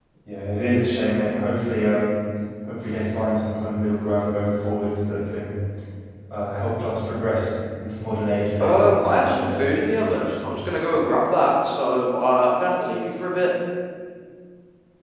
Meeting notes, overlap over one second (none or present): present